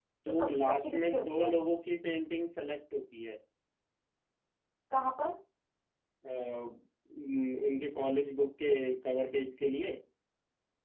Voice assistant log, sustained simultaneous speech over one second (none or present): present